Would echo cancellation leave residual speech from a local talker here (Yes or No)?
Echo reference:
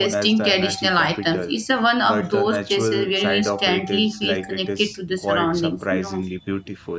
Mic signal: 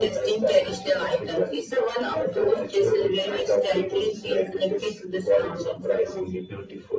No